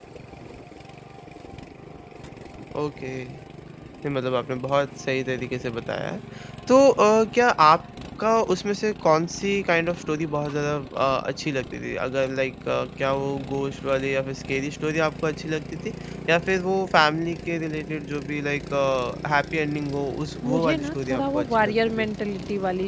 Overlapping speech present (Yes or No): Yes